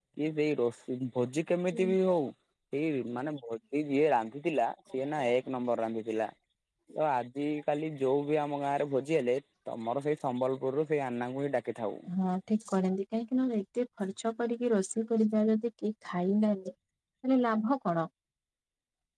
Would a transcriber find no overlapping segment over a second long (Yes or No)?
Yes